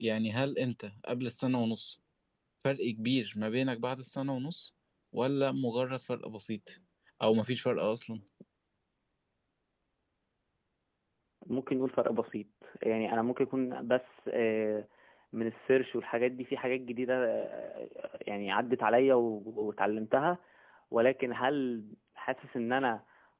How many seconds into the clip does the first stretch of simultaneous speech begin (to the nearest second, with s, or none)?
none